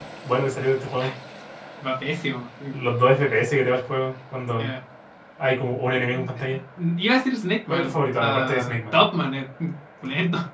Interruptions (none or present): present